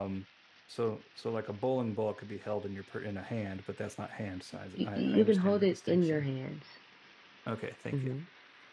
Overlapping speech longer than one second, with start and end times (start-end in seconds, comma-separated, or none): 4.8-6.3